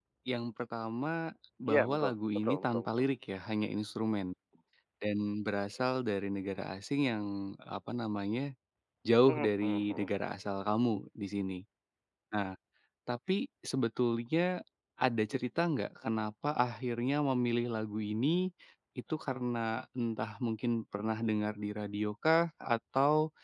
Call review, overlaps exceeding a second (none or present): present